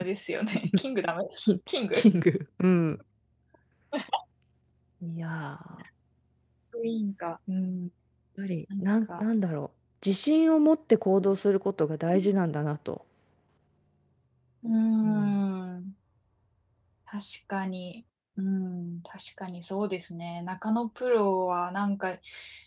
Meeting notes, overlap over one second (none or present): none